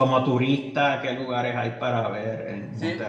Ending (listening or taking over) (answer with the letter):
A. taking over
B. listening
A